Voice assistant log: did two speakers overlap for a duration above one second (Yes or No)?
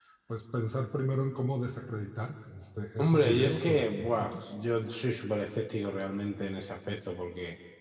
Yes